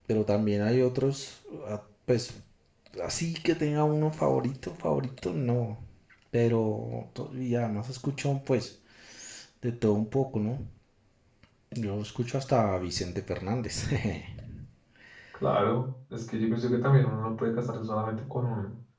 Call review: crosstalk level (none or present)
none